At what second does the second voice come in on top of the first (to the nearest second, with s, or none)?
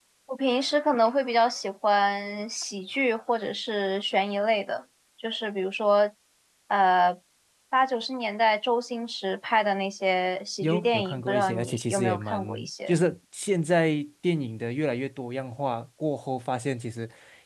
11 s